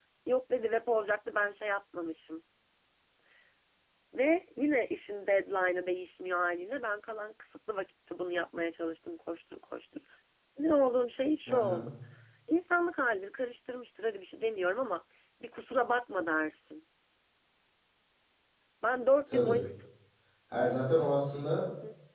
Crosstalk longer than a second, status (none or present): none